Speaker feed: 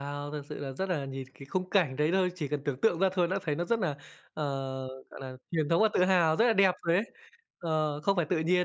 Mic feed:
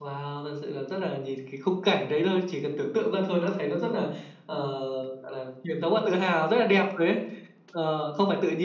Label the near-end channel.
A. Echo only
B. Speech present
A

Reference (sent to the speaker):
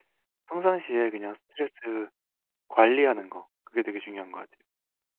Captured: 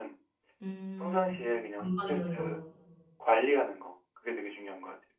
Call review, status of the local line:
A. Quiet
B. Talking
B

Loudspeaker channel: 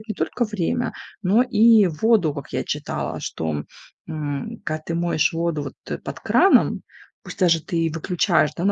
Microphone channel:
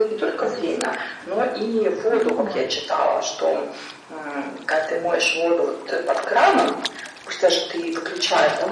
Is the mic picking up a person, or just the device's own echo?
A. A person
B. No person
A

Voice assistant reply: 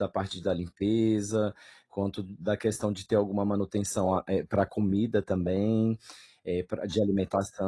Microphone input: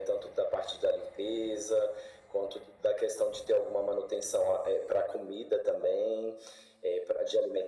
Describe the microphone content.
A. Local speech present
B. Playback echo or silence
B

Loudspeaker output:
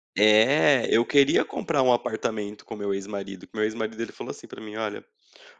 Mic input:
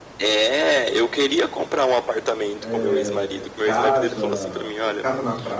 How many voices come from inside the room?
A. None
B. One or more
B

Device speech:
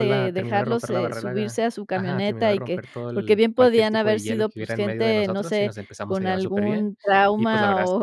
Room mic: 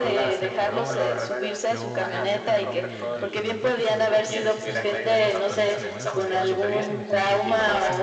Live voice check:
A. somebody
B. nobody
A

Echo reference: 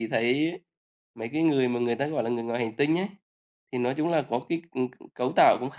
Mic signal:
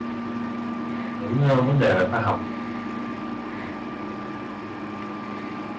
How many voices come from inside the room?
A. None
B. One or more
B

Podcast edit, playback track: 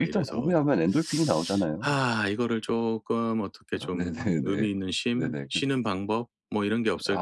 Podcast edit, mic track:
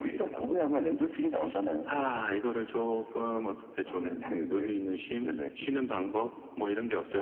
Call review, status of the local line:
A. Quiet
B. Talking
A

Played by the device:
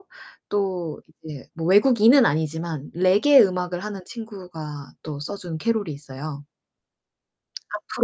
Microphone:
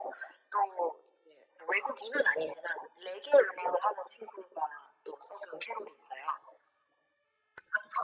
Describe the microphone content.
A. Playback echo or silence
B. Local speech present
A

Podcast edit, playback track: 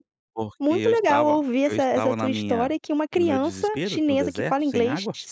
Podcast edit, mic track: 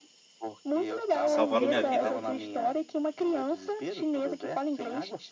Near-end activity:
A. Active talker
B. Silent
A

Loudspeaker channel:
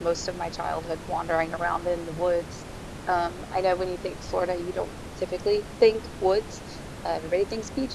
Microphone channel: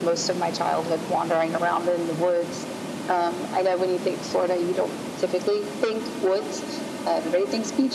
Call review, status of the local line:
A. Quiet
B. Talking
A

